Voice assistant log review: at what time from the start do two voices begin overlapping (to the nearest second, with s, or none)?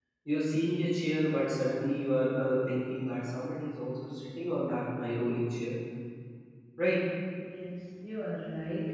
none